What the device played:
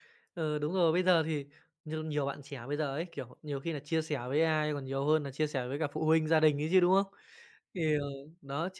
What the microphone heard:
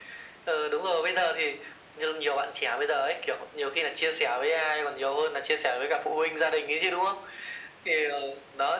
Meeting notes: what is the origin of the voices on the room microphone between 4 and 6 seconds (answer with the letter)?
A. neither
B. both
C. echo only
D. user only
C